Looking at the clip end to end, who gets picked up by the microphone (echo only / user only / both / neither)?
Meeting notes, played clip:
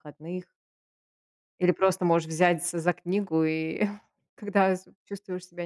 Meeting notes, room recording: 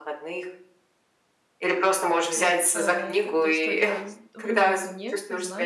both